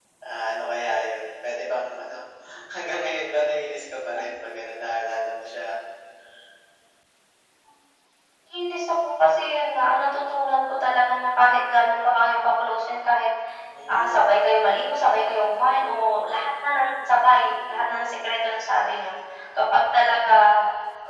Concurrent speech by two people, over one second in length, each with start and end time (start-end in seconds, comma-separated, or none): none